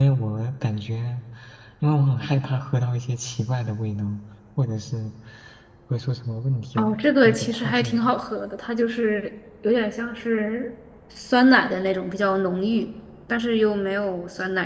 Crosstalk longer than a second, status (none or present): present